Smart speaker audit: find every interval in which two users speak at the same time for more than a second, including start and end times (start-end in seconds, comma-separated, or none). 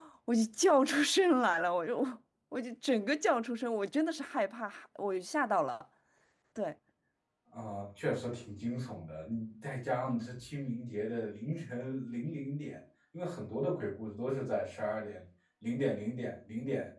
none